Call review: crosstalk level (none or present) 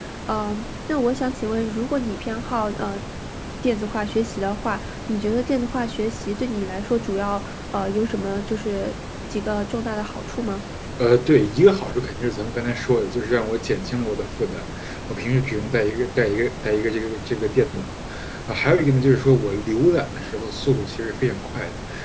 none